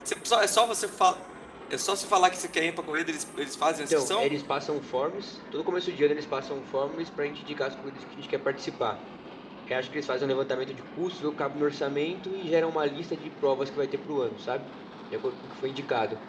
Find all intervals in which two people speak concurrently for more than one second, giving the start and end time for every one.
none

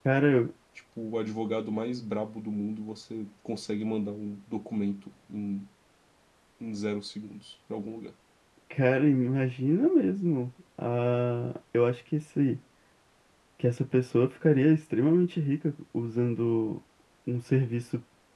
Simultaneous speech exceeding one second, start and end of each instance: none

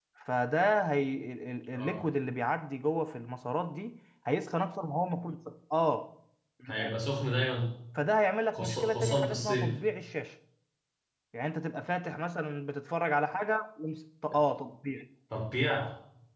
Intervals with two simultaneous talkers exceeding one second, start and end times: 8.5-9.7

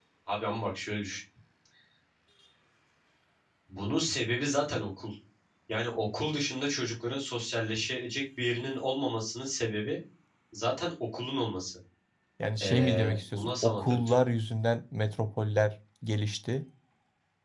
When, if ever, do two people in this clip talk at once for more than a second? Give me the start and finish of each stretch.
12.6-14.2

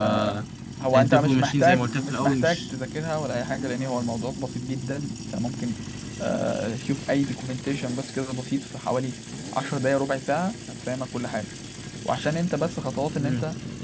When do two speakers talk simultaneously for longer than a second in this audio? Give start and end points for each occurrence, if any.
0.9-2.6

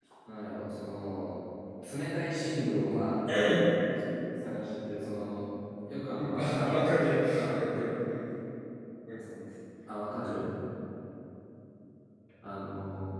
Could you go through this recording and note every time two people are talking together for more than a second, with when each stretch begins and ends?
6.2-7.6

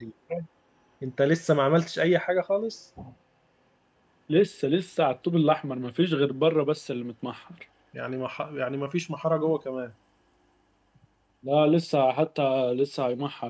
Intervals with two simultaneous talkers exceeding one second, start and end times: none

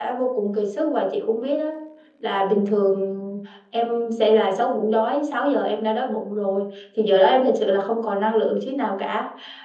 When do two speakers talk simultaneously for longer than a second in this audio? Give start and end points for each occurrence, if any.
none

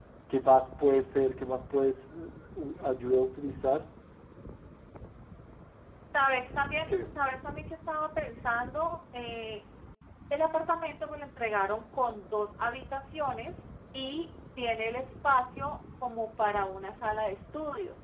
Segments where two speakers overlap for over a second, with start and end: none

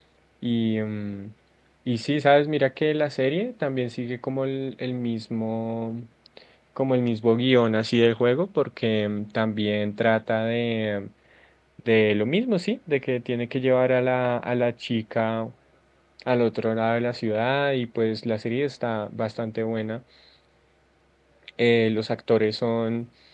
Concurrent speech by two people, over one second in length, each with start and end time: none

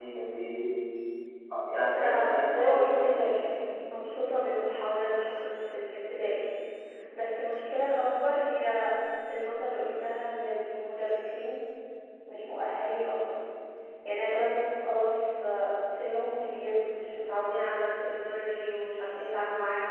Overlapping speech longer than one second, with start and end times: 2.0-3.3

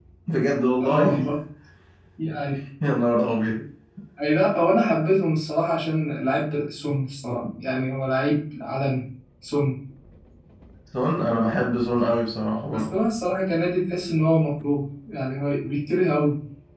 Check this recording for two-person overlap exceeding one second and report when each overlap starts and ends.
none

